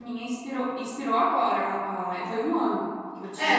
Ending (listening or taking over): taking over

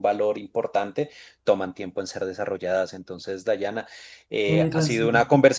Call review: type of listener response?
listening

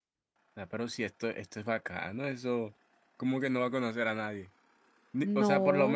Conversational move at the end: listening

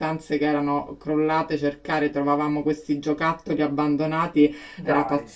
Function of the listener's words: listening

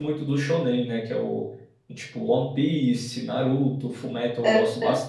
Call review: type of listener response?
listening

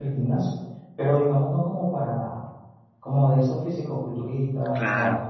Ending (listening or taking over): listening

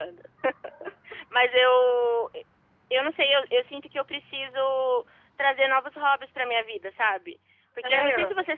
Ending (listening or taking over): listening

